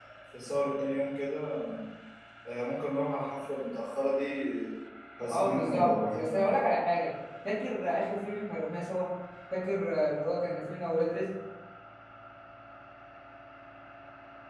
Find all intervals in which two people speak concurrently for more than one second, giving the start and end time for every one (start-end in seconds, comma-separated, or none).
5.3-6.5